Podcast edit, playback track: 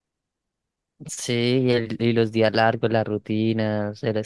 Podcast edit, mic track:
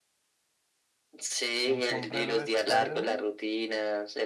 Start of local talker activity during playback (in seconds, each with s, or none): 1.6 s